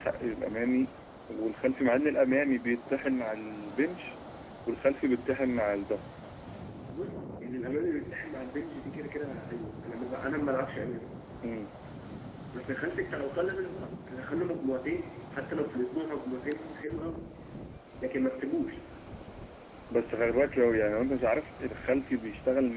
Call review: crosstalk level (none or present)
none